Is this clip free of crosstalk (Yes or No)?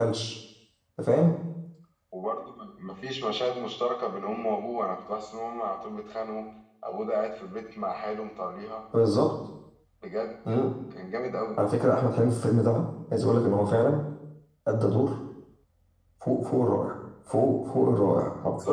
Yes